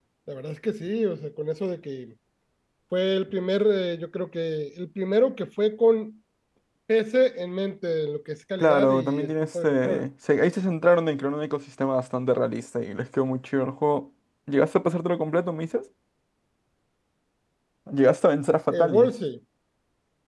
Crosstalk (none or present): present